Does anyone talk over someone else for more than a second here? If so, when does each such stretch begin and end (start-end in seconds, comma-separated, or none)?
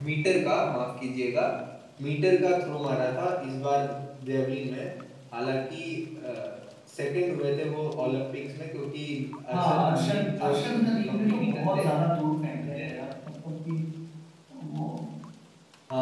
9.5-11.9